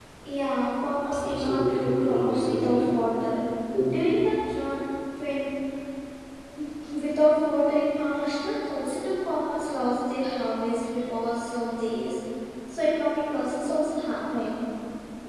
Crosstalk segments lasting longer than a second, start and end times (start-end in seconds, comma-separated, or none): 1.2-2.9